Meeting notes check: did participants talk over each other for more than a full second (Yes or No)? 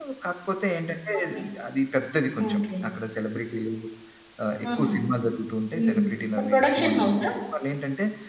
Yes